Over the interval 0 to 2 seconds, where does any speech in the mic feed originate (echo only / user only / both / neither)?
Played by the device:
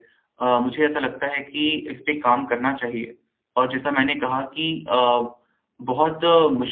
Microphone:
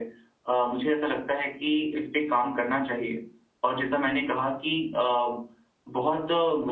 echo only